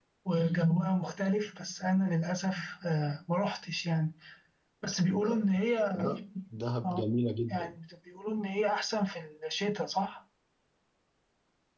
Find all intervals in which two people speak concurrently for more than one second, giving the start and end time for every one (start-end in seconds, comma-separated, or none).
none